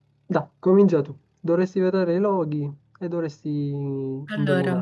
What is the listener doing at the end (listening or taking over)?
listening